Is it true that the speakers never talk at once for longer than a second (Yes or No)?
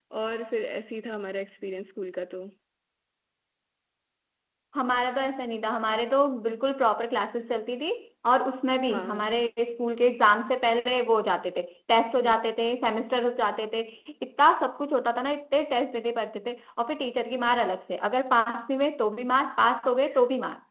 Yes